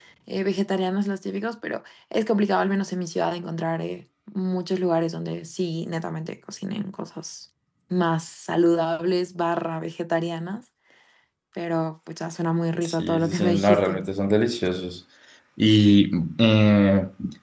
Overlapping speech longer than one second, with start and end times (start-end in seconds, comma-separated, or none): 12.8-14.0